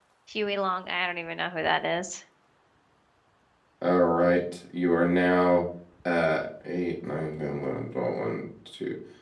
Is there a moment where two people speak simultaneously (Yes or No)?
No